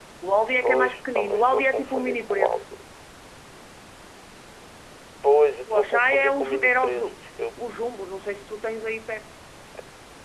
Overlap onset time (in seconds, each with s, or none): 0.6 s